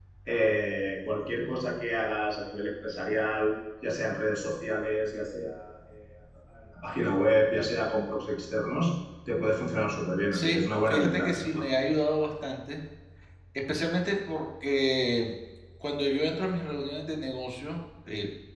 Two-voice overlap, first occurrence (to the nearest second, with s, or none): 10 s